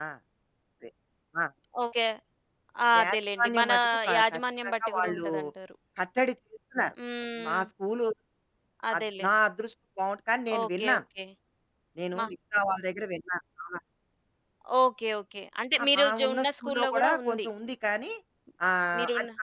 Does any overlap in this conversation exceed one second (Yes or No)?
Yes